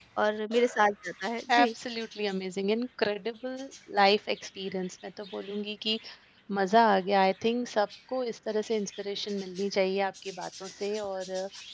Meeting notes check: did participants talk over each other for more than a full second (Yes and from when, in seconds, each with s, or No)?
No